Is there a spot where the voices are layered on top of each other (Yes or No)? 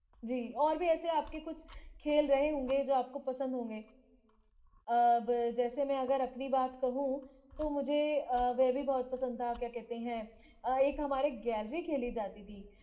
No